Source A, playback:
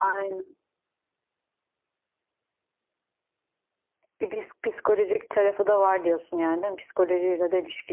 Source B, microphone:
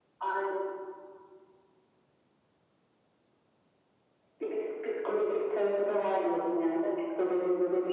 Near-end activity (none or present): none